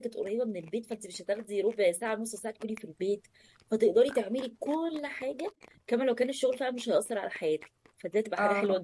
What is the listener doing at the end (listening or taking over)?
listening